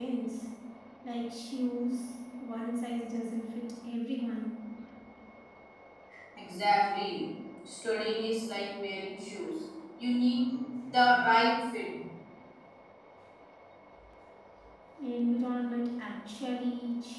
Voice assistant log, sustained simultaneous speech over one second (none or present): none